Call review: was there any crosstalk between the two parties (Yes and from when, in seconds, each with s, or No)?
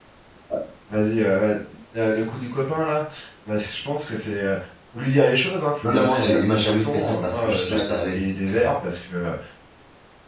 Yes, from 5.8 s